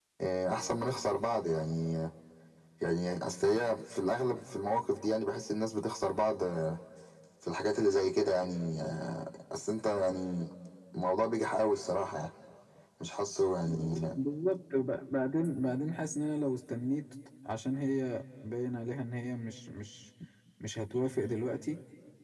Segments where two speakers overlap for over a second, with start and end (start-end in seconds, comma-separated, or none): none